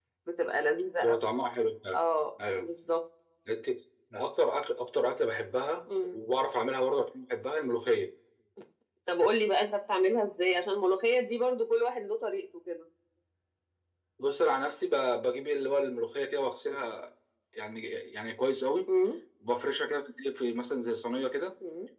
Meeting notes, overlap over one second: none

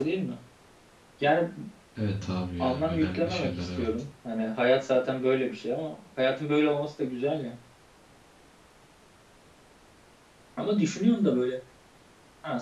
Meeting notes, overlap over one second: present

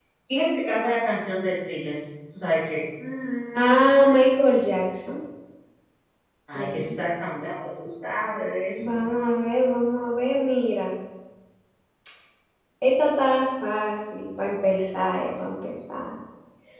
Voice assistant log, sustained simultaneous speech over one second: none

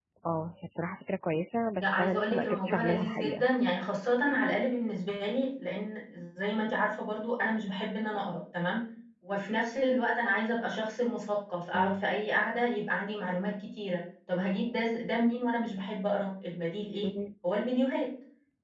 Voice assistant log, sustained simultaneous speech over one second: present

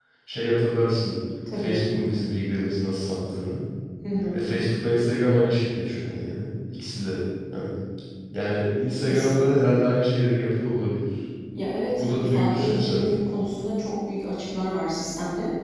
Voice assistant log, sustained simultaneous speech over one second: present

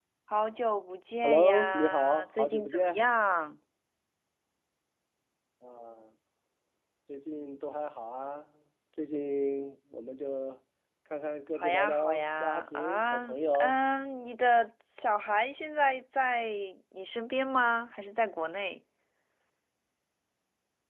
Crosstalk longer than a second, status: present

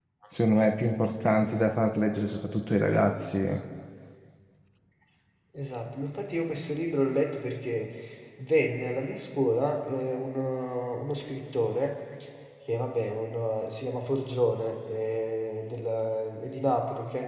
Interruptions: none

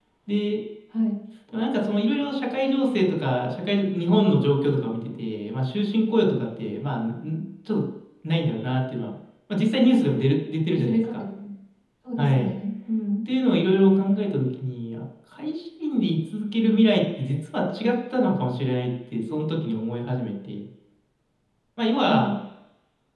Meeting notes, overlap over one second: none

